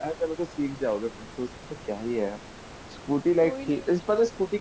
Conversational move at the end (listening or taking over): listening